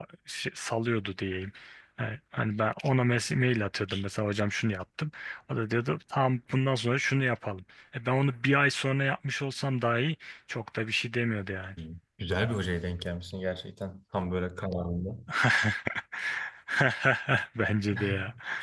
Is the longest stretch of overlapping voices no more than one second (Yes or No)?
Yes